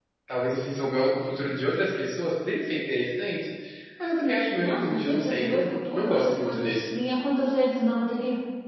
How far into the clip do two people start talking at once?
4.6 s

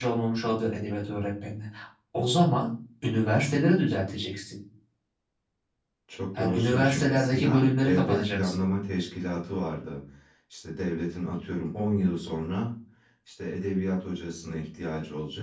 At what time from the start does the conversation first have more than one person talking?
6.4 s

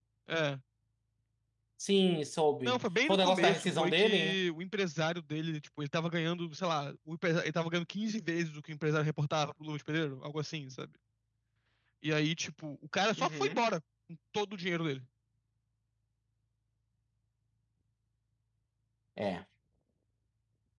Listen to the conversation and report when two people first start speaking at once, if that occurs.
2.6 s

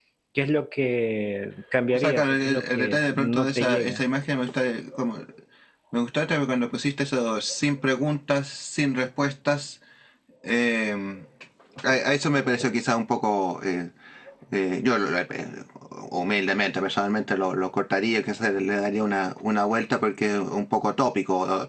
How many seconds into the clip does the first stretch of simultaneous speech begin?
1.9 s

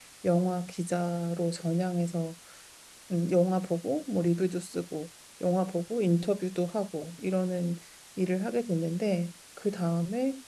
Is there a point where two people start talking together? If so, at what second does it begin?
none

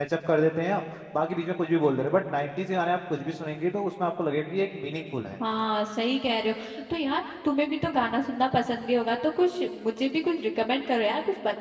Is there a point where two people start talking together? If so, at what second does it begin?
none

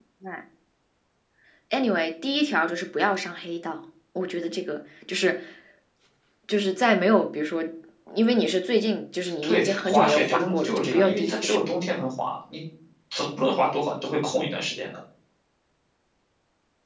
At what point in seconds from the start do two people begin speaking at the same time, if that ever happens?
9.2 s

